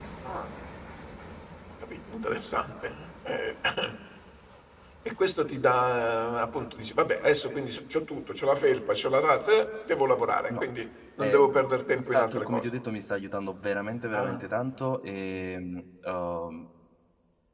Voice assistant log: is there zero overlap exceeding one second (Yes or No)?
No